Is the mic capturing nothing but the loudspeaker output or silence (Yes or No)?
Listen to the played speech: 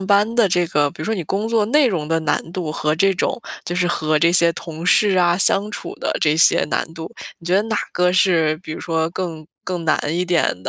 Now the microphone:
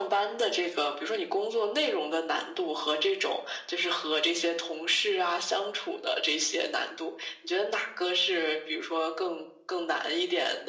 Yes